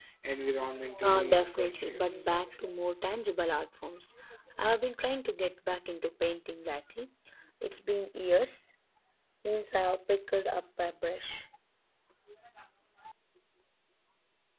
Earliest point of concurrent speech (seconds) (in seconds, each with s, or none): 1.0 s